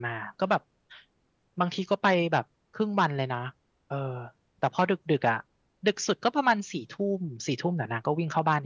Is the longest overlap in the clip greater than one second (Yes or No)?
No